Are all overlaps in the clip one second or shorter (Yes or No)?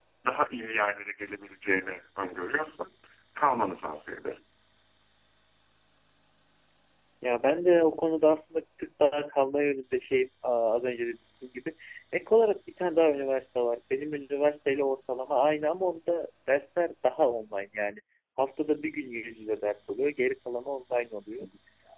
Yes